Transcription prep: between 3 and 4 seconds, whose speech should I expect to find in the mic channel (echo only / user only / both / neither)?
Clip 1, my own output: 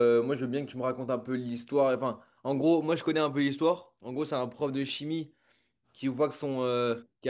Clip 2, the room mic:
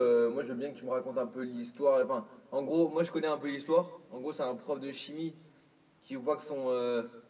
echo only